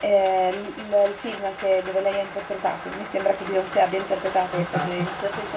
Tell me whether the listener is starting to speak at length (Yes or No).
No